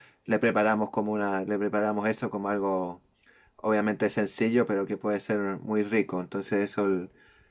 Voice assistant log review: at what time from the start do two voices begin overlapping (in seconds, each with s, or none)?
none